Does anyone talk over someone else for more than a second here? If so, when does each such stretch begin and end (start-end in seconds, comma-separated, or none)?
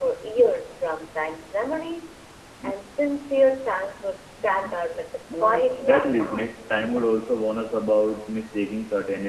5.3-6.8